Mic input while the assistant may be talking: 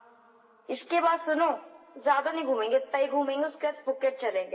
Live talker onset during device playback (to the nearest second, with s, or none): none